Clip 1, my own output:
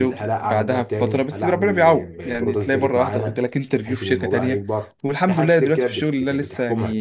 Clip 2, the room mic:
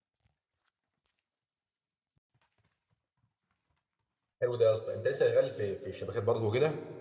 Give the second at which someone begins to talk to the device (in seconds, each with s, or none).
4.4 s